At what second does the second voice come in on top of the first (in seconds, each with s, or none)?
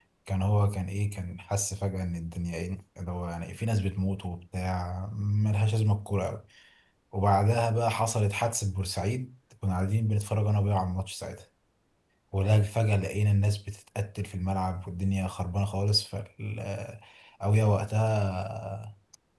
none